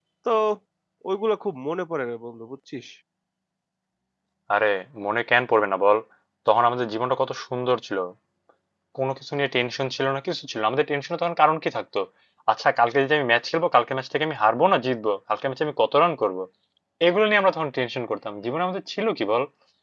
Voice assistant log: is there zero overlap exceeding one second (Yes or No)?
Yes